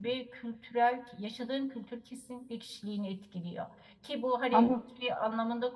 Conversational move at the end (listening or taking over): listening